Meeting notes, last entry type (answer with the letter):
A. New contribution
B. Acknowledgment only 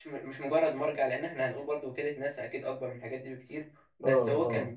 B